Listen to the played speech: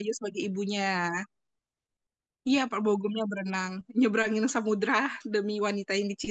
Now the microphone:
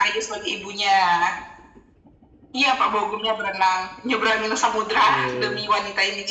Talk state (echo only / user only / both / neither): both